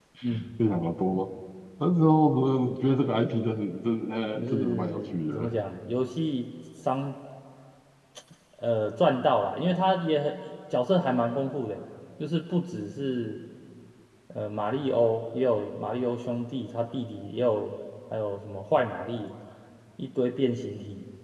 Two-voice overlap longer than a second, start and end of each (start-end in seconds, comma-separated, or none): 4.3-5.6